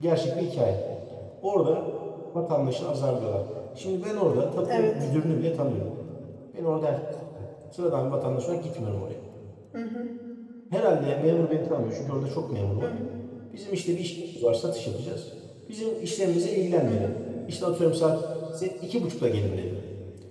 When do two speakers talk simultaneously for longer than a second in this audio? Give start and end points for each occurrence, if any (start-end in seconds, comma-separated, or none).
none